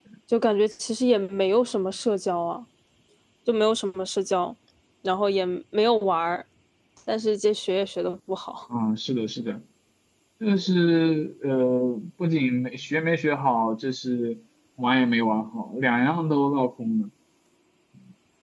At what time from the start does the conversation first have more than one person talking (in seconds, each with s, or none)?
none